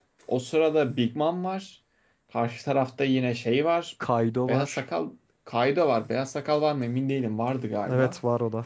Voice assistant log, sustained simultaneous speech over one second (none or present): none